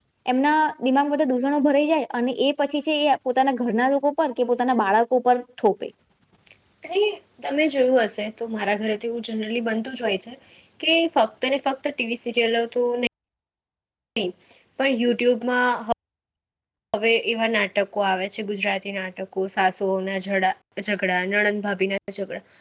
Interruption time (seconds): none

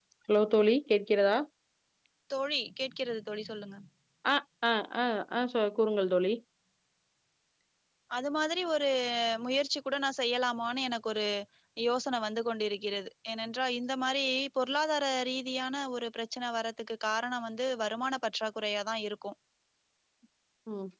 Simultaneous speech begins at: none

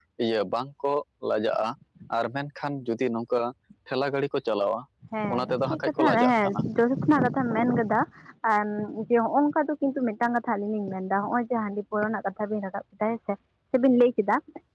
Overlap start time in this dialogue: 5.3 s

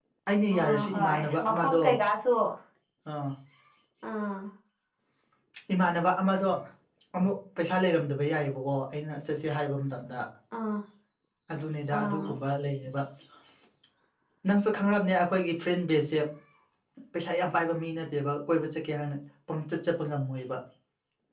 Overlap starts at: 0.6 s

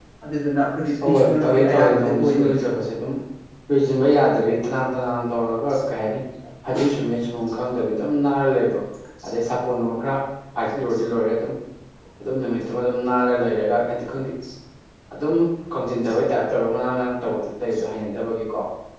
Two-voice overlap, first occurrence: 1.0 s

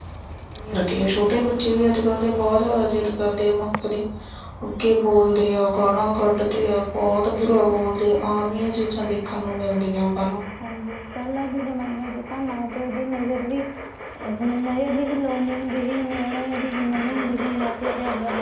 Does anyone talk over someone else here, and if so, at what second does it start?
none

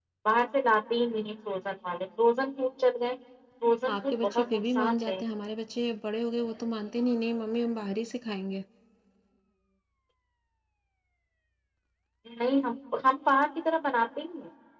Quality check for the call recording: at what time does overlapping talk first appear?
3.9 s

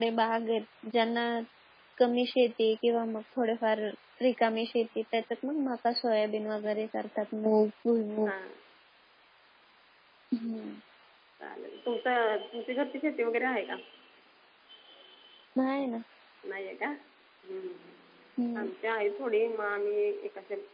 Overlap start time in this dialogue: none

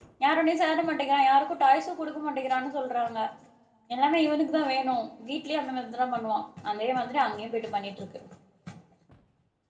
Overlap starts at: none

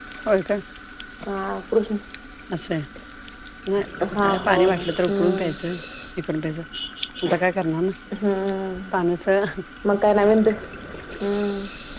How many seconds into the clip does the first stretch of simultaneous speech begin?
4.1 s

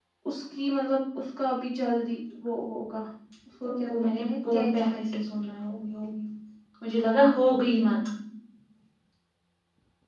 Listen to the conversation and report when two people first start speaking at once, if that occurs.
3.6 s

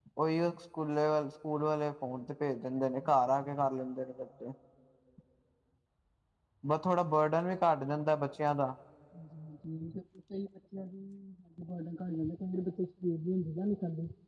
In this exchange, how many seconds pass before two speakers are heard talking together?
none

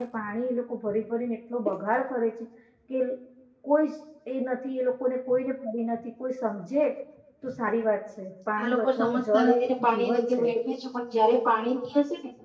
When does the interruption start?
8.6 s

